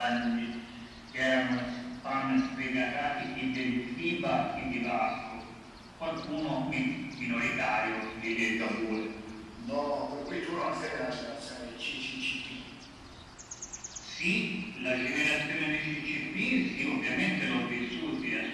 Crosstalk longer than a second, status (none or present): none